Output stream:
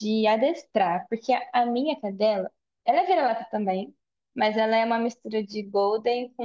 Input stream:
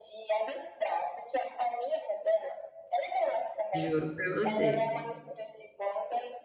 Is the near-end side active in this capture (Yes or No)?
Yes